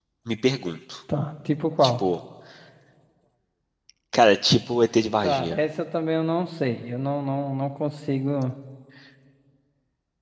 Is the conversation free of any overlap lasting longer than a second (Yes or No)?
Yes